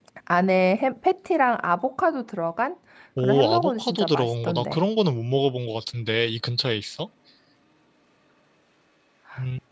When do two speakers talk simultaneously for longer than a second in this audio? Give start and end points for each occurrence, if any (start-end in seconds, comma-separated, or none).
3.2-4.8